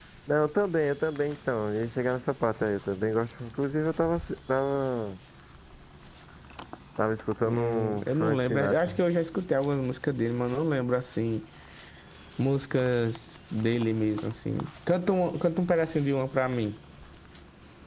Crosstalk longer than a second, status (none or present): present